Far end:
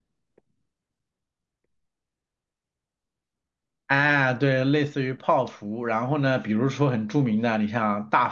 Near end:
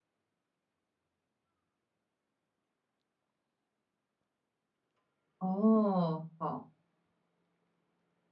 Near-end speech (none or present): present